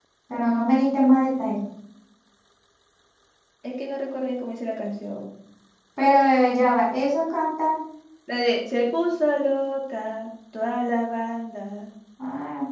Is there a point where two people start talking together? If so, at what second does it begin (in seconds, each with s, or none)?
none